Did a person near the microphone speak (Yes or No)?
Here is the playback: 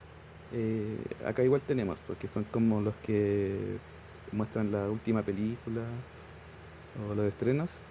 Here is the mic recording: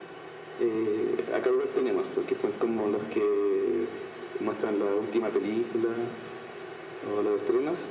No